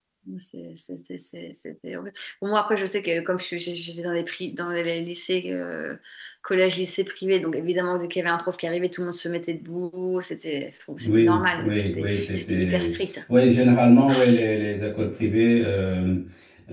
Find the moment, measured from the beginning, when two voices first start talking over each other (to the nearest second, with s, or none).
11 s